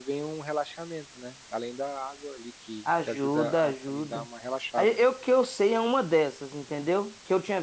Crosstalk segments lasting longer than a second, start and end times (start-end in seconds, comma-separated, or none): 3.0-4.2